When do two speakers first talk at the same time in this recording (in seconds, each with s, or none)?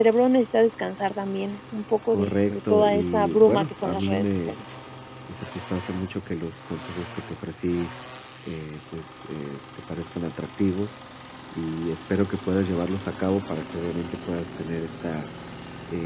2.1 s